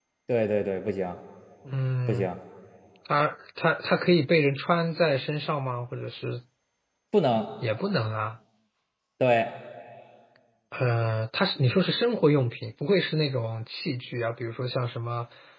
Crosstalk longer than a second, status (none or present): none